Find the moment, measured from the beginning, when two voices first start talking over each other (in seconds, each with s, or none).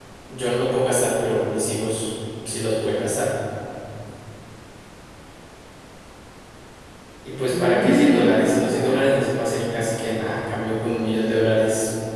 7.5 s